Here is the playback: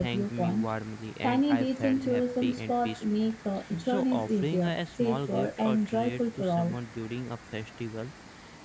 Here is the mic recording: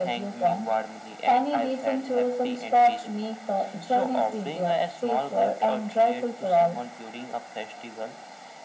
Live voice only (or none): none